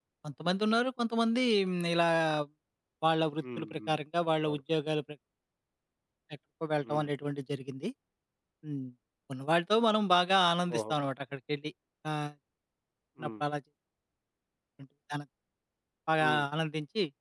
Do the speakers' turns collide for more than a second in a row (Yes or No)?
No